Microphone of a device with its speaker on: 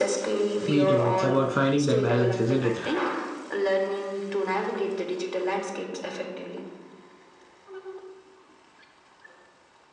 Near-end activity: present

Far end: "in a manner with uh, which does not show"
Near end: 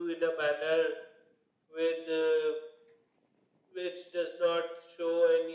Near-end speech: none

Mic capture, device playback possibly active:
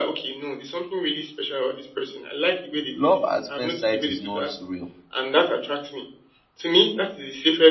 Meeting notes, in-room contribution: present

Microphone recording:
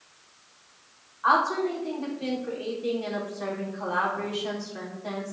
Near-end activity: present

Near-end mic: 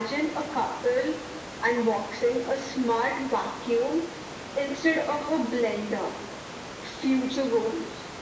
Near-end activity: none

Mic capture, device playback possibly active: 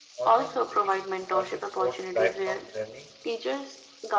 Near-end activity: present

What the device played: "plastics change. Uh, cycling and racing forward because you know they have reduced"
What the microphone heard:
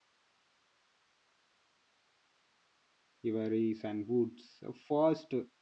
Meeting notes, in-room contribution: present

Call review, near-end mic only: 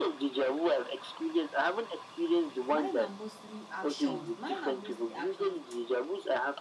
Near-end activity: present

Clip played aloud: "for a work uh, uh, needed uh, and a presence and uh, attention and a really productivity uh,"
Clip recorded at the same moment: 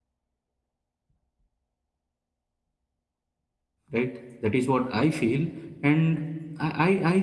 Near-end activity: present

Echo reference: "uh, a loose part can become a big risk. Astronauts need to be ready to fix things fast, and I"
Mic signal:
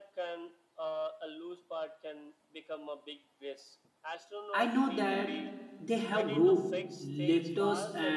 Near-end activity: present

